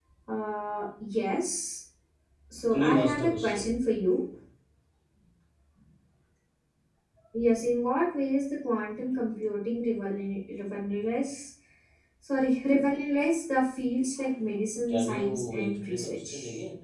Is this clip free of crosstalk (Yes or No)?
No